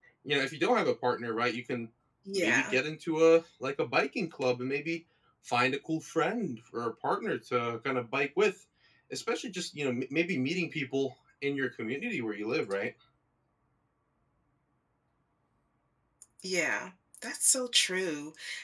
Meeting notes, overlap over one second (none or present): none